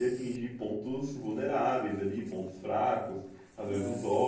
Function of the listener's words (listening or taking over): listening